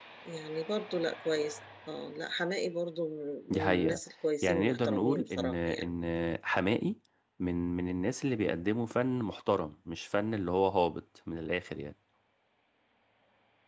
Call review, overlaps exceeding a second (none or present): present